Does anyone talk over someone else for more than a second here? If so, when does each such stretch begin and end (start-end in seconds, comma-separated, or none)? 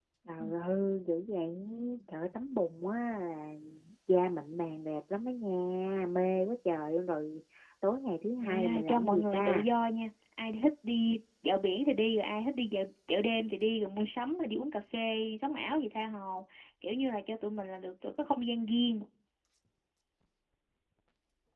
8.4-9.7